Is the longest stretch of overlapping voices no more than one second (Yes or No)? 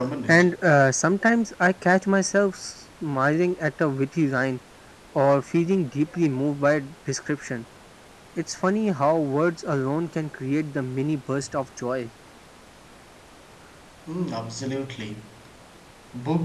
Yes